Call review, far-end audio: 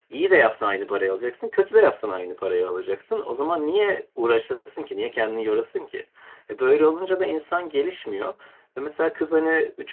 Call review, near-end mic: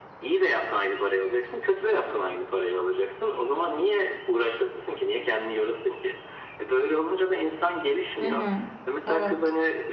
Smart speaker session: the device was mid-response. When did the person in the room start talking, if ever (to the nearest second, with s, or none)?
8 s